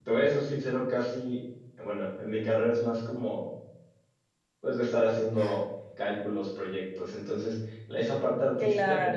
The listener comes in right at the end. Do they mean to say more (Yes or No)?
No